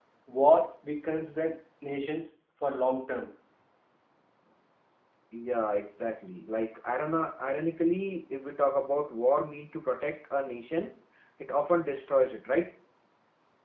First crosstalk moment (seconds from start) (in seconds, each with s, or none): none